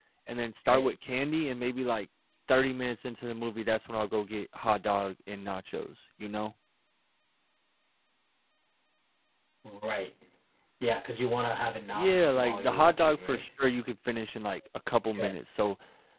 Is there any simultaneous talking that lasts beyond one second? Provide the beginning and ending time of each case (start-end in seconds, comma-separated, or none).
11.9-13.4